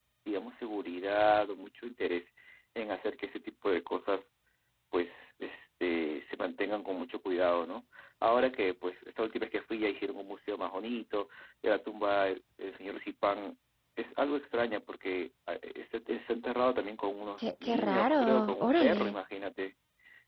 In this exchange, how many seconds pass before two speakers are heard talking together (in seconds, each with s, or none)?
17.4 s